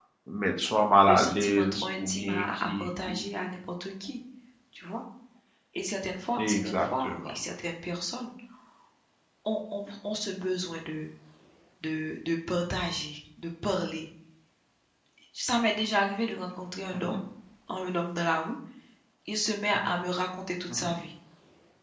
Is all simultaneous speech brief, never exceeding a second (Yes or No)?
No